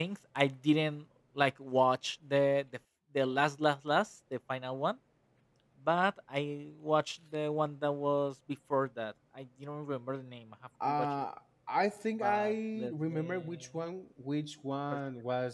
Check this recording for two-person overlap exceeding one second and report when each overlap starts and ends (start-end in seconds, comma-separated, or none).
12.2-13.6